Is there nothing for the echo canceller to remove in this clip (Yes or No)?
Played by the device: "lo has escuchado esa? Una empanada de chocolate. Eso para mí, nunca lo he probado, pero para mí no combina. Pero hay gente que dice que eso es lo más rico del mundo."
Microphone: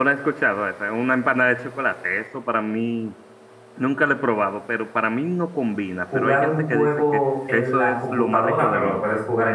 No